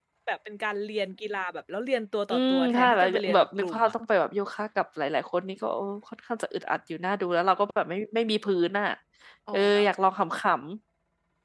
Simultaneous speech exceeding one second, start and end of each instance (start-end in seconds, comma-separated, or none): 2.3-3.9